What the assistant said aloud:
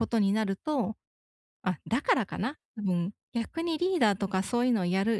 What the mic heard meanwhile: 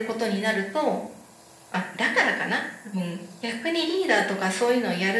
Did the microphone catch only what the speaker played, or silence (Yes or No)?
Yes